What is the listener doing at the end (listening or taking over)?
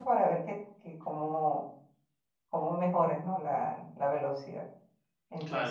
taking over